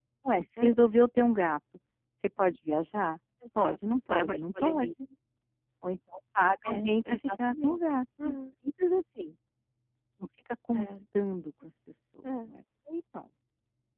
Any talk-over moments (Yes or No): Yes